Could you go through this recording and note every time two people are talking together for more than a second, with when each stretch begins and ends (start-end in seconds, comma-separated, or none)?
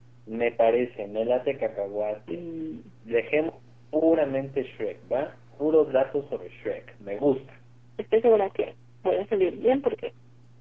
none